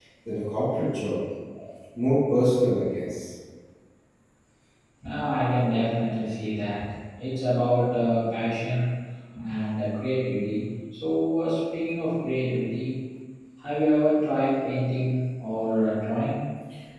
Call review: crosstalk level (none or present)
none